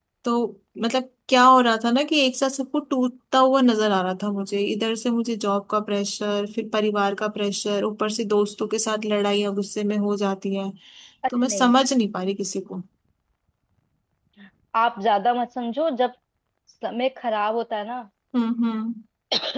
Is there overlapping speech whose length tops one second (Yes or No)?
No